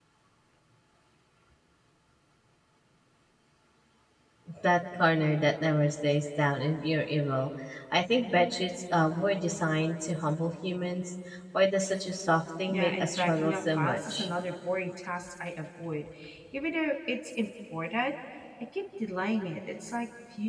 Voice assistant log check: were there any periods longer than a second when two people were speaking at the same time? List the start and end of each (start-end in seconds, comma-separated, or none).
12.7-14.3